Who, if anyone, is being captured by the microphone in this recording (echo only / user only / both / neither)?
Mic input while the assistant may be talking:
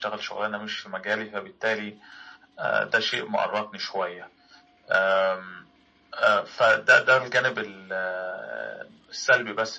echo only